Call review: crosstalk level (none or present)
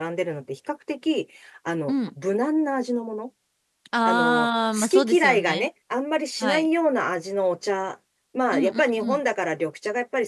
present